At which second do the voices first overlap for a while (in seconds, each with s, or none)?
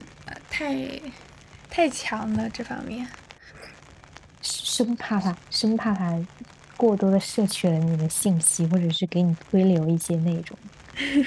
none